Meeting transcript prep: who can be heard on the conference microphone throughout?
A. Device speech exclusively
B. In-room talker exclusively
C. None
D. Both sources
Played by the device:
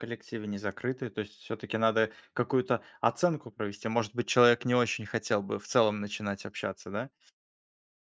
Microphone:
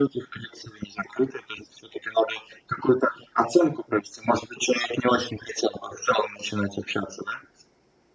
A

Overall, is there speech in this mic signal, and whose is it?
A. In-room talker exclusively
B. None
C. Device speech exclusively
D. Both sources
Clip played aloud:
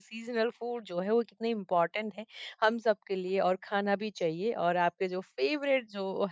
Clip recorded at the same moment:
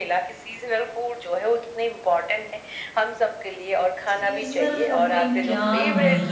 D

